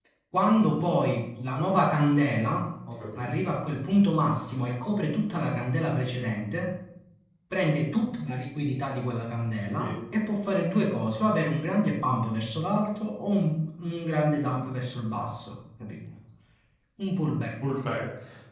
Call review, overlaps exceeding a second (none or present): none